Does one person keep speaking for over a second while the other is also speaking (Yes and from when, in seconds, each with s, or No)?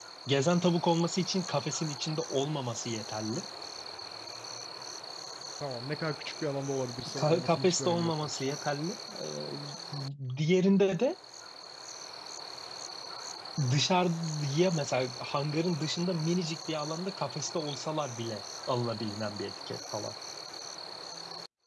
Yes, from 7.2 s